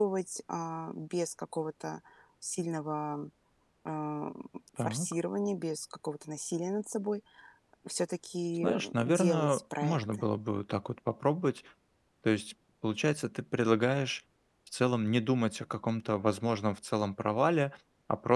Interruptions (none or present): present